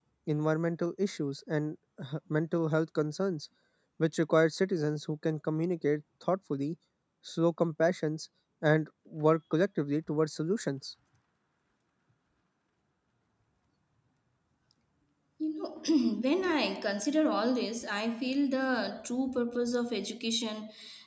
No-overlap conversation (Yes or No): Yes